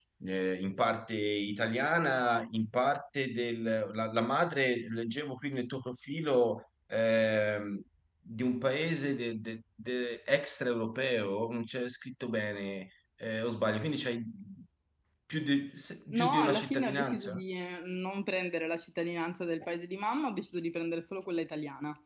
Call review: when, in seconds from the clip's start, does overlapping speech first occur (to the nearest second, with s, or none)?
16 s